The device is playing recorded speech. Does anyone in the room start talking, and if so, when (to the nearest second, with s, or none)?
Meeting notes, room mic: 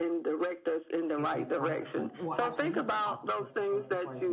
1 s